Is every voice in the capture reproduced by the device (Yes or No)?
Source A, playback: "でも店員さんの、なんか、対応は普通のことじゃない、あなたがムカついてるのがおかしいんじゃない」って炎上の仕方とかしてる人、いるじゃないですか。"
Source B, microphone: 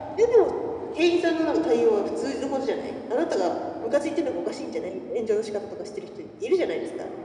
Yes